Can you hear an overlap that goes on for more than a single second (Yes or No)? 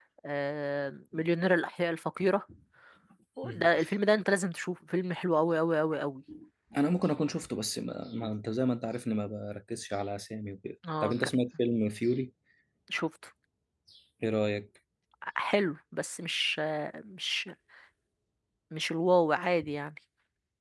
No